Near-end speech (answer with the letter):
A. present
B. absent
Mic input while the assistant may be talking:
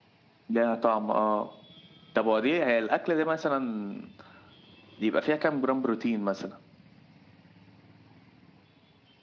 B